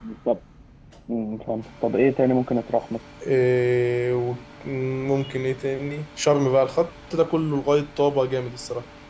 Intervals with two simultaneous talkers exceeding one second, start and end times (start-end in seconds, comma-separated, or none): none